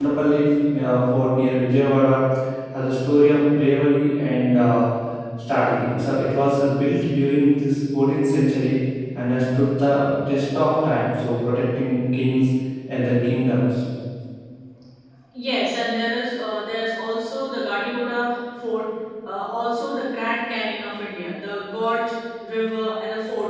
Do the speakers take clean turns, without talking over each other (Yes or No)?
Yes